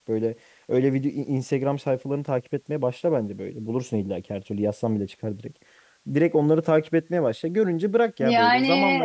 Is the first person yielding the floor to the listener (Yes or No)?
No